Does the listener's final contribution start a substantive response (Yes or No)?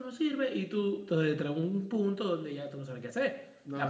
Yes